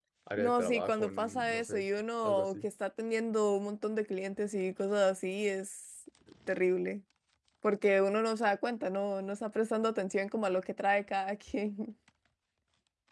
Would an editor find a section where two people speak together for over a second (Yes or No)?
Yes